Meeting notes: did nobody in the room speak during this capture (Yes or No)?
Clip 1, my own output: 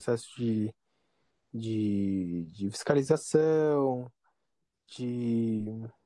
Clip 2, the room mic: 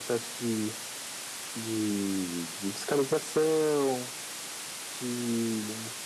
Yes